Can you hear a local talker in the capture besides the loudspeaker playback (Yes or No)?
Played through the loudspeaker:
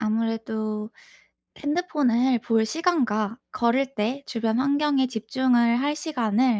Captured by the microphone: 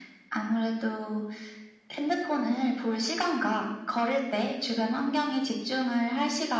No